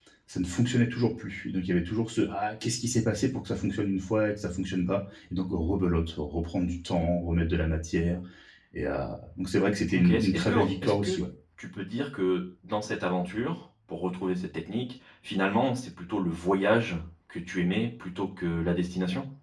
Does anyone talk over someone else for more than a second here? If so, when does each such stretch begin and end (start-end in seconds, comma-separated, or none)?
9.9-11.2